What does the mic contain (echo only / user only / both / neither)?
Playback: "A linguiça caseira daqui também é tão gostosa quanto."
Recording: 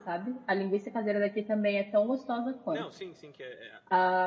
both